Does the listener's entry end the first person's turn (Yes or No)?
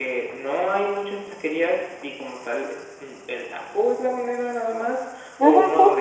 Yes